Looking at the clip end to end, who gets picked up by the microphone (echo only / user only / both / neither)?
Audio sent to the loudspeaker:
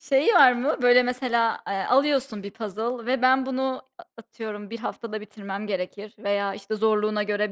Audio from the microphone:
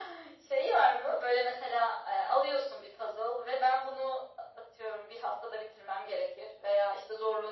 echo only